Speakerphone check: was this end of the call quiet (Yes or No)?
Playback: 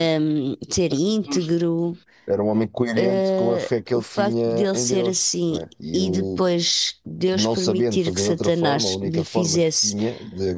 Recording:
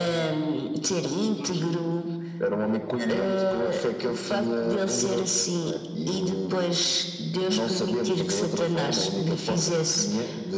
Yes